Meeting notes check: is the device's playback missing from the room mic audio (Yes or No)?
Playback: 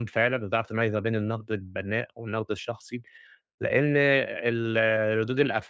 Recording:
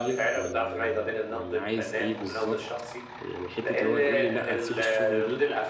No